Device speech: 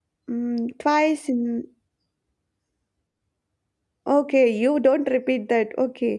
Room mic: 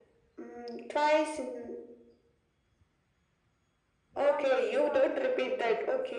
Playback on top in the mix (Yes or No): Yes